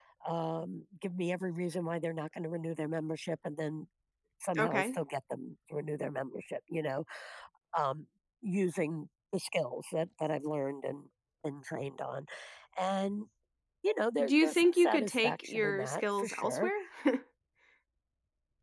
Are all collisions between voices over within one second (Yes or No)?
No